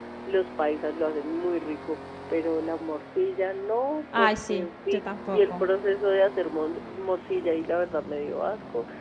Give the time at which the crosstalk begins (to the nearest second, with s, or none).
4 s